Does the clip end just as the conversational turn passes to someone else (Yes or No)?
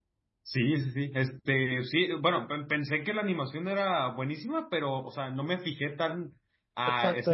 Yes